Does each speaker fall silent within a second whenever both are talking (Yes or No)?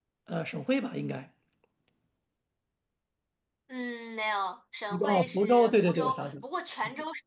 No